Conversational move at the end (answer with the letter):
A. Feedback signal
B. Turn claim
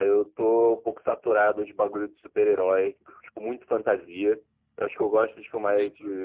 A